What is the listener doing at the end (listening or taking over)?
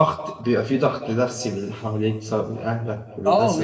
taking over